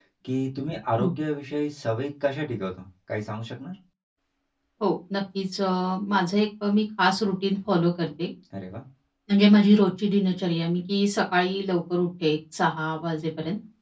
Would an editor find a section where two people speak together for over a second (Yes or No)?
No